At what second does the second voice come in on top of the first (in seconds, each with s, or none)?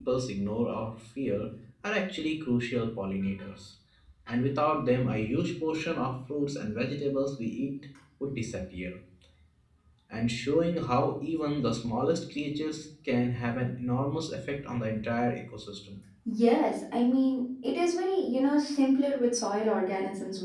none